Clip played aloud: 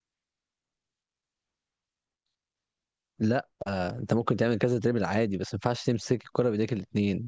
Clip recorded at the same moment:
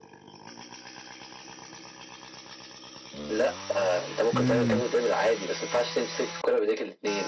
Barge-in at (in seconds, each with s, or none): 4.3 s